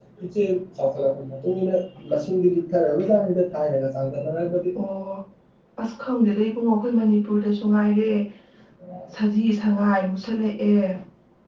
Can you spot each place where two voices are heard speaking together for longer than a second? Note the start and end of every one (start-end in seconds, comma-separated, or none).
none